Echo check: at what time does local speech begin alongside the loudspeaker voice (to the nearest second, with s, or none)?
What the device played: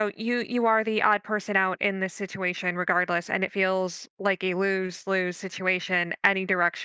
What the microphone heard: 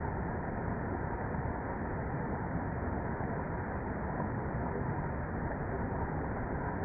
none